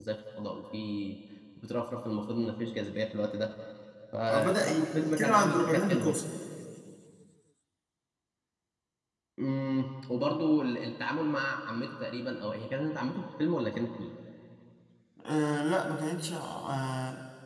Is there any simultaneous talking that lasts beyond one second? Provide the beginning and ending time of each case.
4.3-6.2

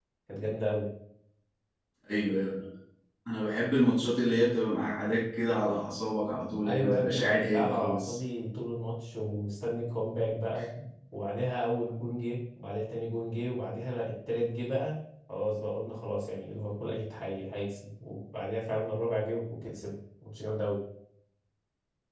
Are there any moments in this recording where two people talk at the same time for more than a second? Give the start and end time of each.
6.6-8.2

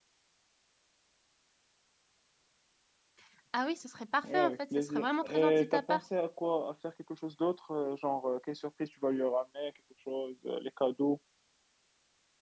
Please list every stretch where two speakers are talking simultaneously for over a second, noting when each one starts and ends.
4.2-6.0

